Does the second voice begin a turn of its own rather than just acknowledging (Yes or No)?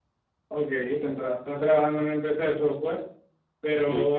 No